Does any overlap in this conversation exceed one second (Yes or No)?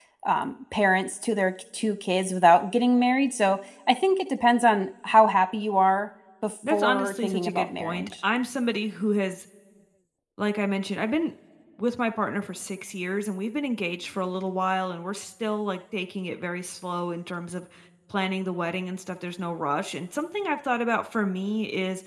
Yes